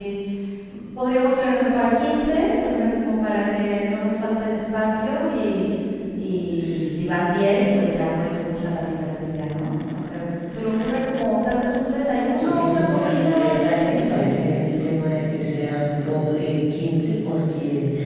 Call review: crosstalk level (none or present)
present